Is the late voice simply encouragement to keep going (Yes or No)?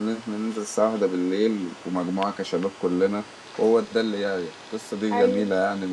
Yes